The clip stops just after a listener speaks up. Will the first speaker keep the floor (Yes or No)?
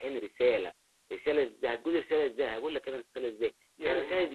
Yes